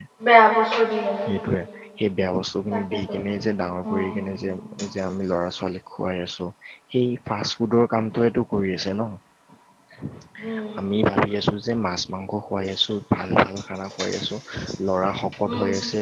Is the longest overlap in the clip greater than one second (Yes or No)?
No